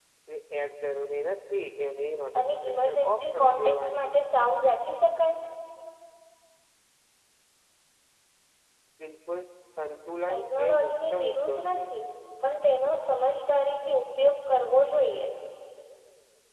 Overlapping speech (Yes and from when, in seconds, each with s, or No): Yes, from 2.4 s